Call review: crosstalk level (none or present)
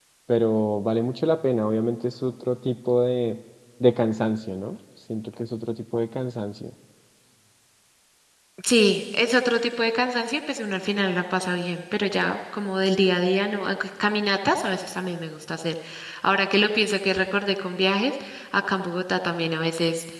none